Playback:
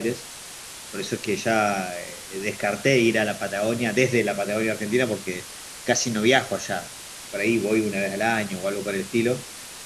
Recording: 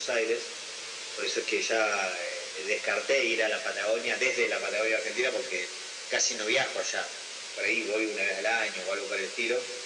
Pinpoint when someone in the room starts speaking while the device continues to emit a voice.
none

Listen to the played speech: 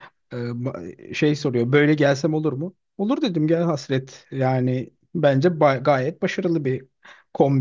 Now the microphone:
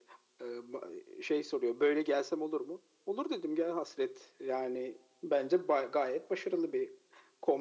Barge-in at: none

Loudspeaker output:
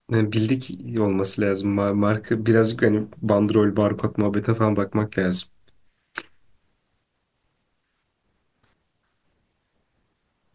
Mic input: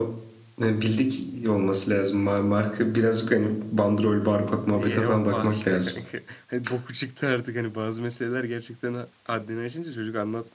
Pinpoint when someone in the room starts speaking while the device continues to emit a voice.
5 s

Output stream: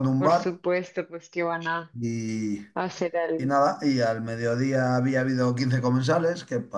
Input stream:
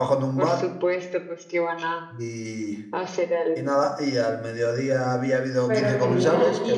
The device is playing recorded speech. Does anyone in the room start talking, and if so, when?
6 s

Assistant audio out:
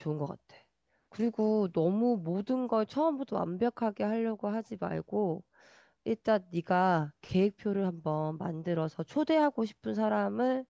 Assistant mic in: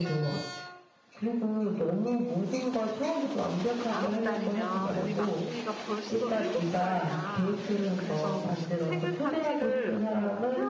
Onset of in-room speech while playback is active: 4 s

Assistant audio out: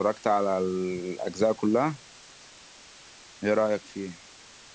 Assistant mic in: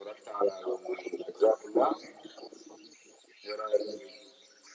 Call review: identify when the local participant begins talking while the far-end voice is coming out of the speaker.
none

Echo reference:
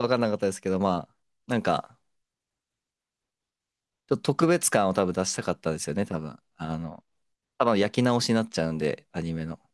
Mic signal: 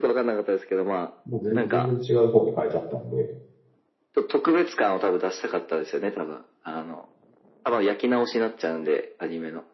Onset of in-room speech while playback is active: 1 s

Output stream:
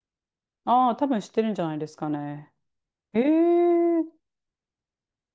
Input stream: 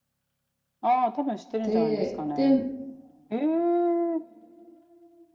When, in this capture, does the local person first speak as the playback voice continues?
2 s

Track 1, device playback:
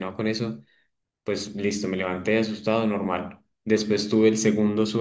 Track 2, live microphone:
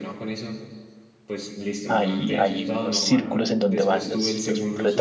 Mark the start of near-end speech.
2 s

